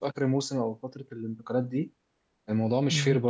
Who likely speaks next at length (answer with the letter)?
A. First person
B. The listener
A